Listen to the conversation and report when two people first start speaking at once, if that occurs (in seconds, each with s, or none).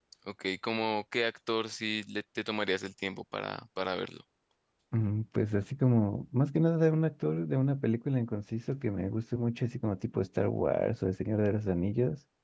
none